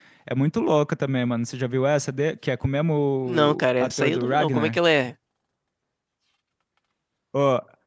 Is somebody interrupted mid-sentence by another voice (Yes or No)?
Yes